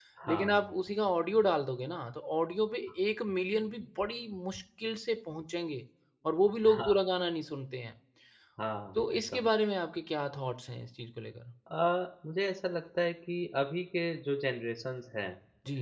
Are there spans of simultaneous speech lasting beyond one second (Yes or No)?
No